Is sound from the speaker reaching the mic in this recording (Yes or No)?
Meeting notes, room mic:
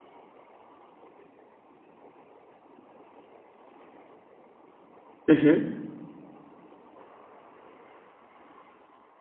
No